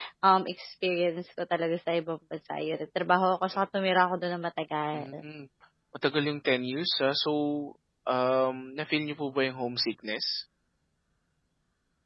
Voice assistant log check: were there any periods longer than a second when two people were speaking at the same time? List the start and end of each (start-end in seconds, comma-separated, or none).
none